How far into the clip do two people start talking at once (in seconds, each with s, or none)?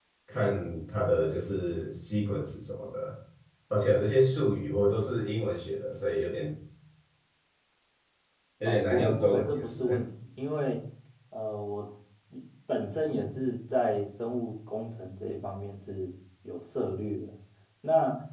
8.7 s